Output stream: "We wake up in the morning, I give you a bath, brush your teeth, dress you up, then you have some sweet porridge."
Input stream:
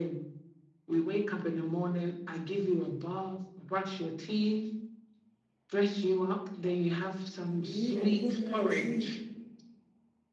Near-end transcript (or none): You need a good night's sleep,